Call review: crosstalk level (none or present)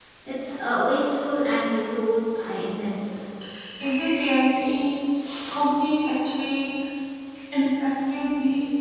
none